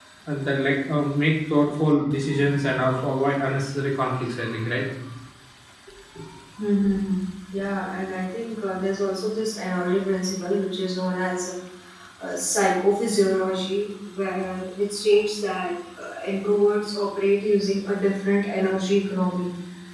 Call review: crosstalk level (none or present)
none